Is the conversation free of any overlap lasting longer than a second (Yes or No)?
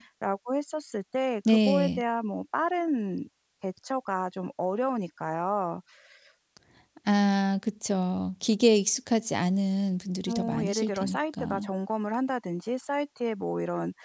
No